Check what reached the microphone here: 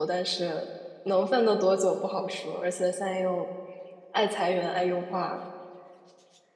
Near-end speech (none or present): present